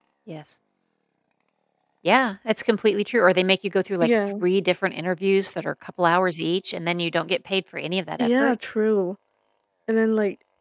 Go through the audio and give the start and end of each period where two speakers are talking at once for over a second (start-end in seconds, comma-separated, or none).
none